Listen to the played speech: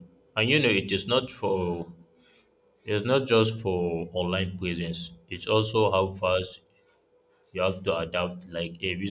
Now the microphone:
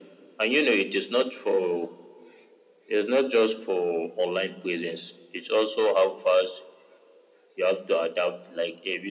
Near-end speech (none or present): none